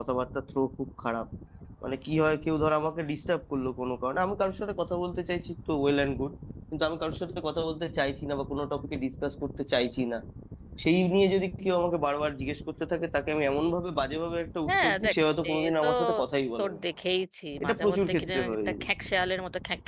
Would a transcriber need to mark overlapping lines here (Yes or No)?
Yes